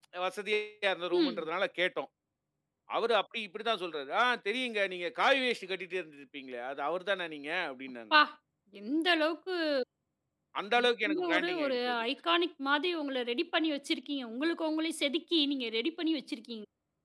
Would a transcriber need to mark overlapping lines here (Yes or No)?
Yes